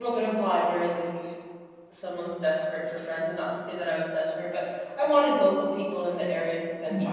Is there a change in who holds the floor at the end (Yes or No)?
No